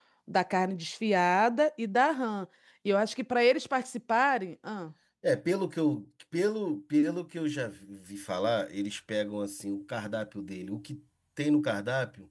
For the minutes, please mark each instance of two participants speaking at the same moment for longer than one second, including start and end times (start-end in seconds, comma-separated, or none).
none